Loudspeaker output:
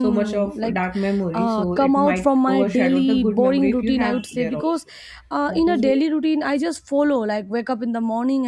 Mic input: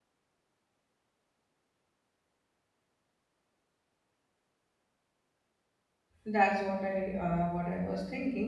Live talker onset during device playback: 6 s

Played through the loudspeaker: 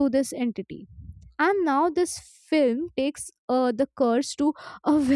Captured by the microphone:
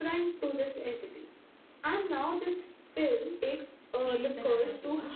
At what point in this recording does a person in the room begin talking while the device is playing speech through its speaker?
4 s

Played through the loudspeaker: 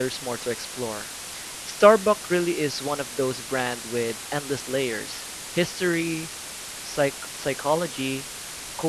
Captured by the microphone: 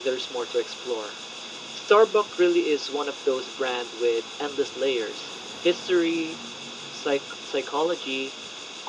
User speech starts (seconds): none

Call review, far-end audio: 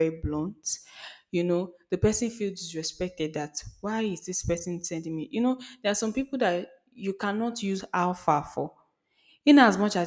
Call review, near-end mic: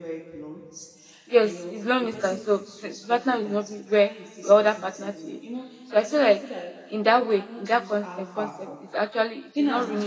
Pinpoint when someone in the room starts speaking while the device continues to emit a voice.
1 s

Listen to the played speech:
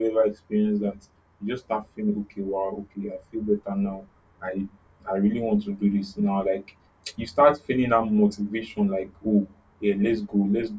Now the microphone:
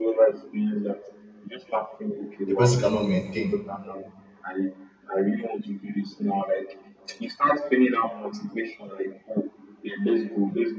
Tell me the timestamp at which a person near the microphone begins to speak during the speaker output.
2 s

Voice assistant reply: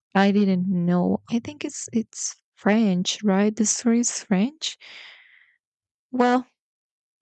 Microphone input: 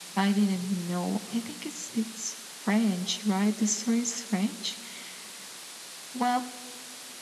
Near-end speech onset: none

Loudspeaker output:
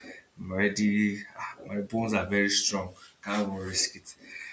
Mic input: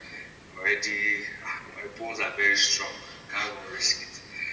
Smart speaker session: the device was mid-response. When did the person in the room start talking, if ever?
none

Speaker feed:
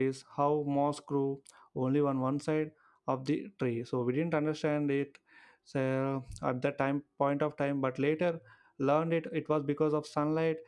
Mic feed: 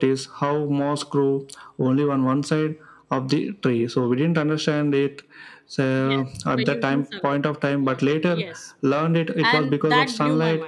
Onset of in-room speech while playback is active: 6 s

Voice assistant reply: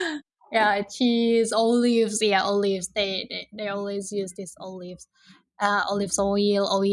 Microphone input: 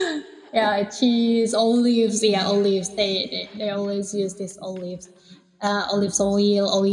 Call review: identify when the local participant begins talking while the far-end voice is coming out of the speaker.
2 s

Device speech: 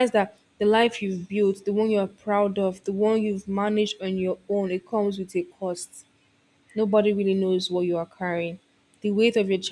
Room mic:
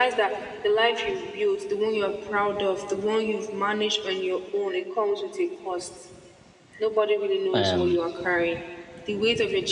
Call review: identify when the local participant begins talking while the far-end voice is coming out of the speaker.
8 s

